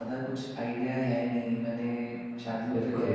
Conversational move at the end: listening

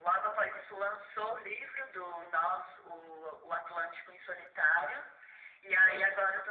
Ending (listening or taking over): listening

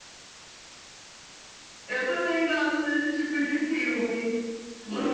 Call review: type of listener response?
listening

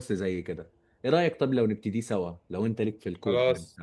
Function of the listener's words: taking over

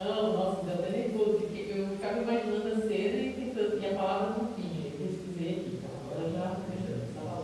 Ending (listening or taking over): taking over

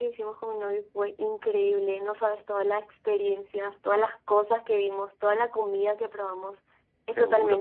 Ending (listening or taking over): listening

